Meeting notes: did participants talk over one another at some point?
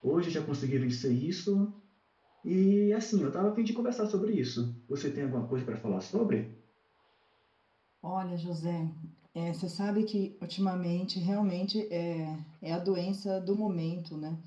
No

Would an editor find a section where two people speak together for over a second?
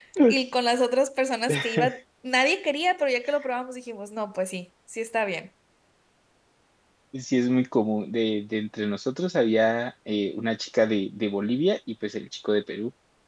No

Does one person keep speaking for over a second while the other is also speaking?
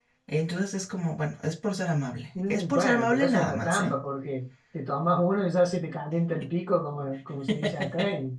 Yes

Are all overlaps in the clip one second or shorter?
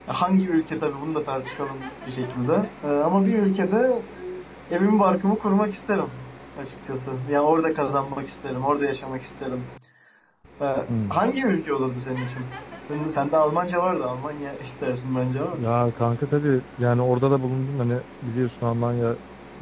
Yes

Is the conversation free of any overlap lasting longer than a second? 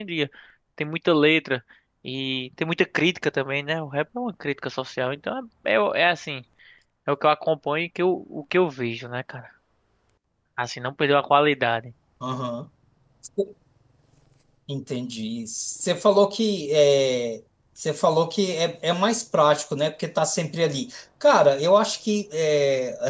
Yes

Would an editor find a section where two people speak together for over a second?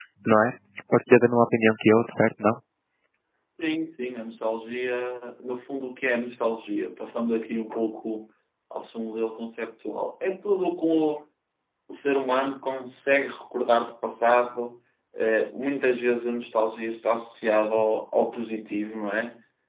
No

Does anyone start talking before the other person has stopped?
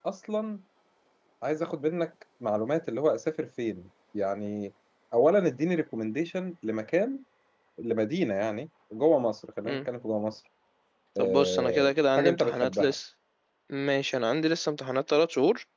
Yes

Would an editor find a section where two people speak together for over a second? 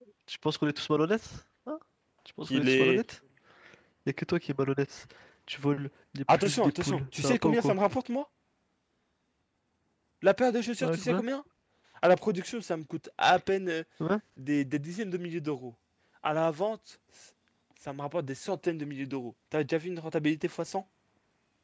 Yes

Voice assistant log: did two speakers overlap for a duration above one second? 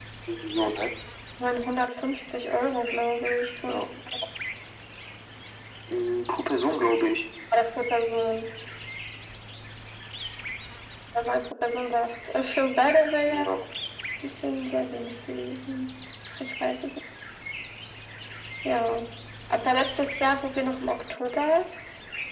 No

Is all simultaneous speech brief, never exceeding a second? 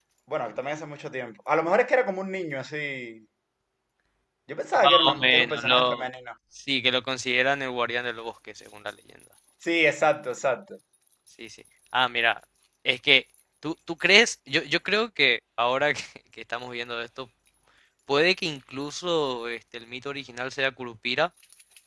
No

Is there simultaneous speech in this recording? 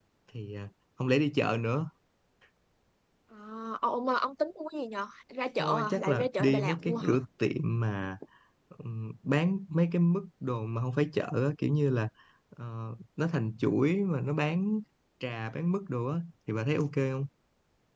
Yes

